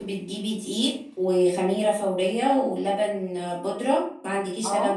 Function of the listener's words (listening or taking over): listening